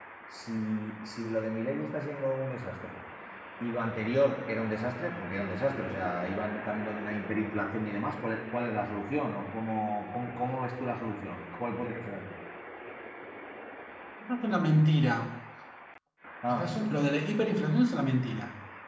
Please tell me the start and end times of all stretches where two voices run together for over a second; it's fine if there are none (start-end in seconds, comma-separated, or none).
none